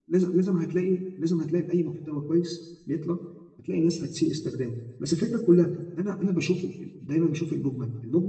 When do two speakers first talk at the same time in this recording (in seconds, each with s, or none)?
none